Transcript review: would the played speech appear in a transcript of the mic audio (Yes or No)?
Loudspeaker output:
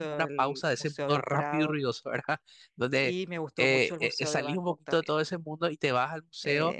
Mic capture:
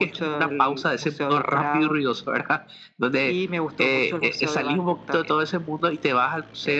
Yes